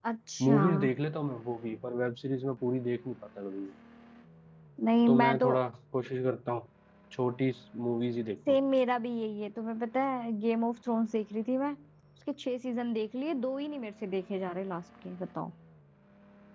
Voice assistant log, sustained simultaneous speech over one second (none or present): none